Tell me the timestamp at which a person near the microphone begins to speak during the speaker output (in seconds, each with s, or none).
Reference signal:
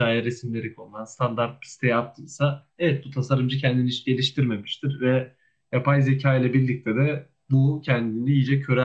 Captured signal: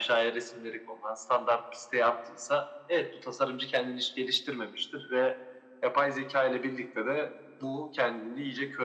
none